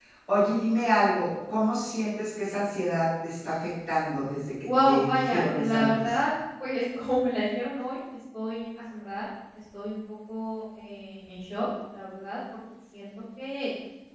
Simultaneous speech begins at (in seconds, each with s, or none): 4.6 s